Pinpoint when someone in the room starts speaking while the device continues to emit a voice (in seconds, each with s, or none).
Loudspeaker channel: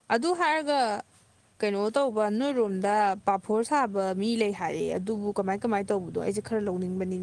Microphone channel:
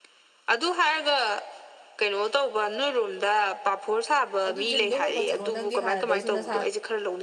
4.5 s